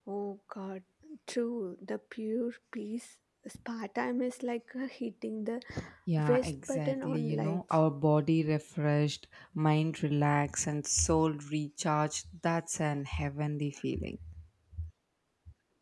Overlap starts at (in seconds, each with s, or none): 6.3 s